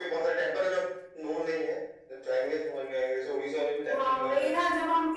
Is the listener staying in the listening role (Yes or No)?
No